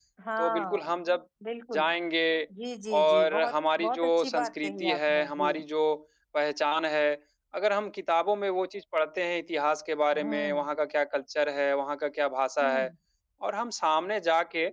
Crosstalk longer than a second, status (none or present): present